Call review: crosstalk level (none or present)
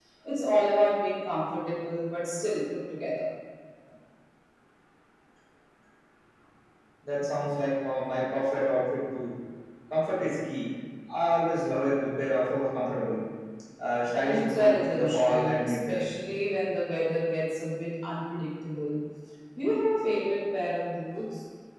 present